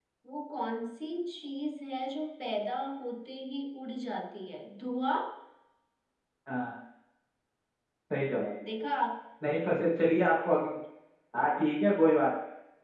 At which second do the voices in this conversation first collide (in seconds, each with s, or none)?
none